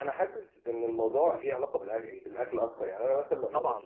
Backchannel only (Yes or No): No